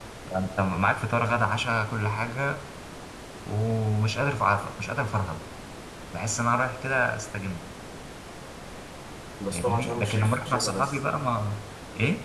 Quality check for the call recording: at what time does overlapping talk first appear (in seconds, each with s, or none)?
9.5 s